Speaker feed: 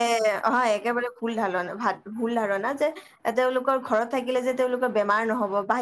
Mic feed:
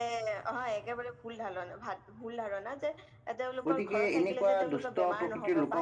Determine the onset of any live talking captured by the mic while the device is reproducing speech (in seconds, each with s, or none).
3.7 s